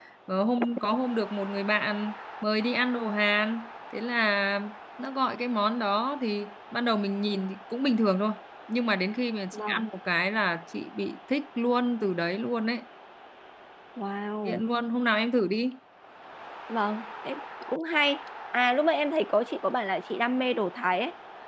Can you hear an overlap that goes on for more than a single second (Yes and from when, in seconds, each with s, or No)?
No